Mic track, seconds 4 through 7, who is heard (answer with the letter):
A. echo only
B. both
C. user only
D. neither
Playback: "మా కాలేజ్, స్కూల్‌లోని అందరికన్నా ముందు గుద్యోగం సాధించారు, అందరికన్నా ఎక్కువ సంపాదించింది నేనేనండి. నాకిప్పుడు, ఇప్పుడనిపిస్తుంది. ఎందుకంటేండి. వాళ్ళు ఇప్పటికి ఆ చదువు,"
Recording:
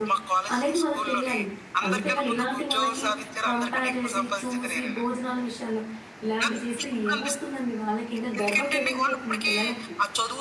B